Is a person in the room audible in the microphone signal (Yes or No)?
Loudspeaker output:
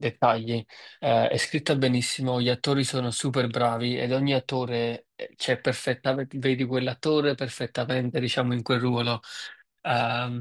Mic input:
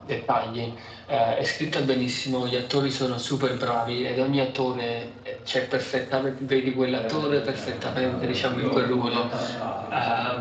Yes